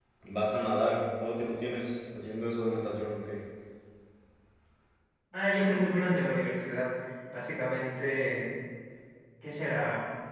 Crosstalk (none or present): none